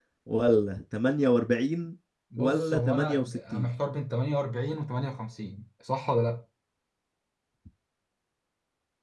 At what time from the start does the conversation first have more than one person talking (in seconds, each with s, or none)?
2.4 s